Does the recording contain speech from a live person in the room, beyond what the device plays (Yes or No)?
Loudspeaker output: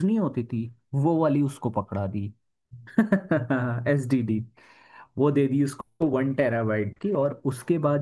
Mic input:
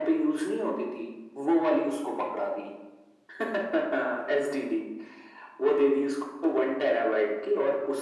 No